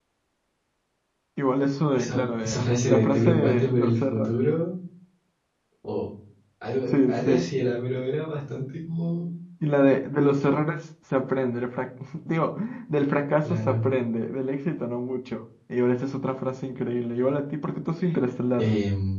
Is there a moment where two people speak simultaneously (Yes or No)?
Yes